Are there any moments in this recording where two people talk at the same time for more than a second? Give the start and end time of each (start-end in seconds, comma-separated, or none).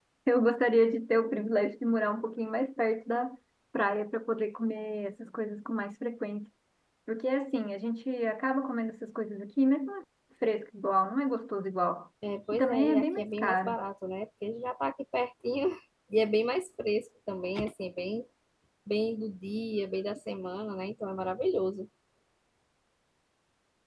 12.5-13.8